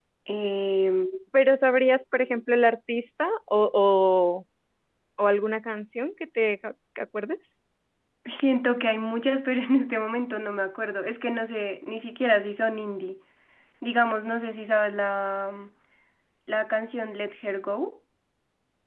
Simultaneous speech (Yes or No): No